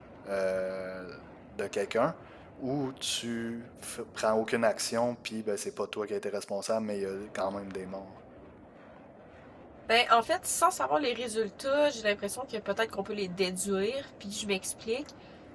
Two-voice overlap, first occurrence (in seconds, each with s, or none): none